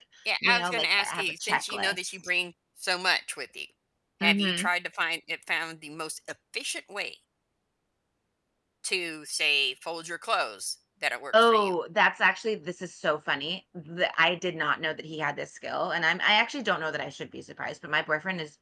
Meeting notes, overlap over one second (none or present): present